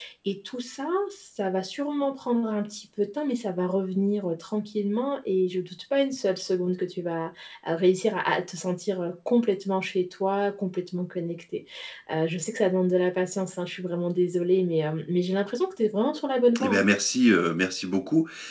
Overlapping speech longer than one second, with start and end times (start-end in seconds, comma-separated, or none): none